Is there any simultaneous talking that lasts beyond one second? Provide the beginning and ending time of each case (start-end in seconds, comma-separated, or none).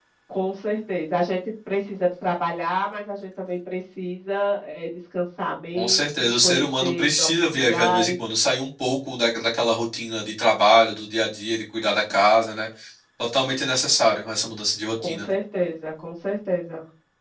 5.8-8.1